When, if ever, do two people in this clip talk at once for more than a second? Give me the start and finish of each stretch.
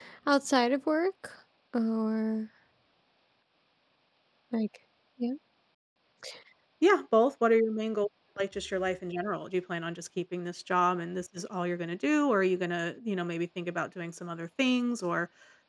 none

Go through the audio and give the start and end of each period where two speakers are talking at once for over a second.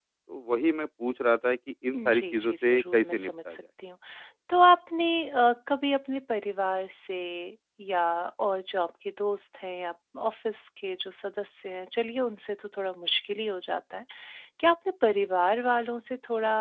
1.9-3.5

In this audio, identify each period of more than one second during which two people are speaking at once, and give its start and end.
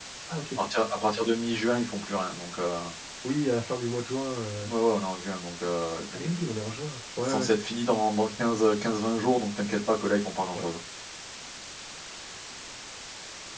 none

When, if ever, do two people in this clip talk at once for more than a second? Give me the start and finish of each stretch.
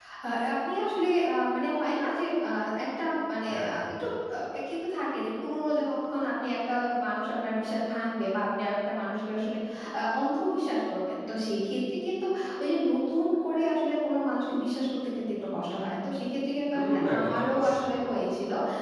16.7-18.0

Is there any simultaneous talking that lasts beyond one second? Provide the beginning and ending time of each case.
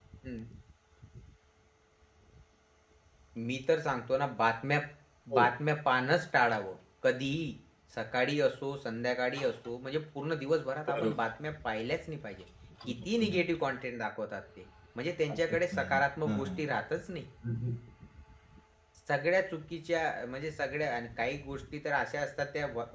15.3-16.6

